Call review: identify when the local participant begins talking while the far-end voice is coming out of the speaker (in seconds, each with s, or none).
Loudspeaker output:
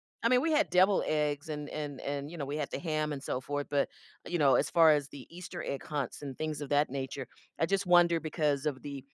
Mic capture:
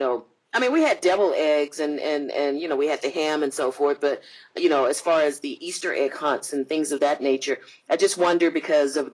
none